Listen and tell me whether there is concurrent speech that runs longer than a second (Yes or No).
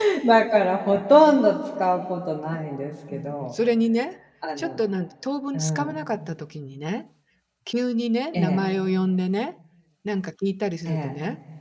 No